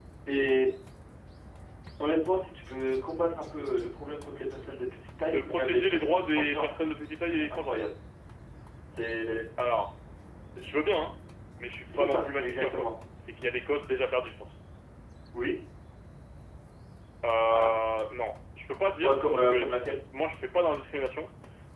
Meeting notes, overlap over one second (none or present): present